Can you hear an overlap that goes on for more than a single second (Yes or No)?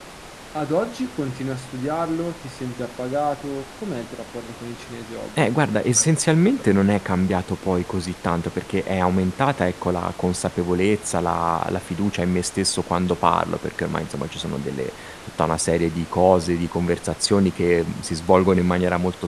No